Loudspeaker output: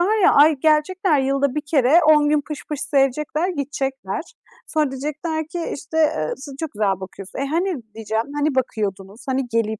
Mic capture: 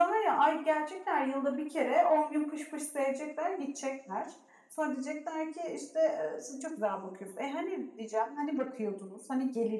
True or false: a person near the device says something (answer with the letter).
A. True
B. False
B